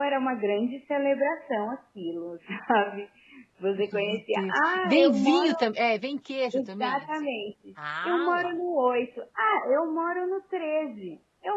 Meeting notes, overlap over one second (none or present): present